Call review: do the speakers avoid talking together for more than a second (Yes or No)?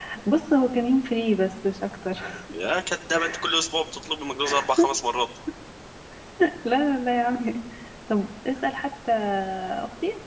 Yes